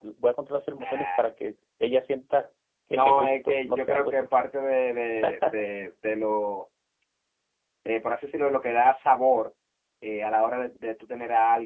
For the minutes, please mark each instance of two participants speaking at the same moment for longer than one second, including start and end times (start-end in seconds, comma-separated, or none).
2.9-4.3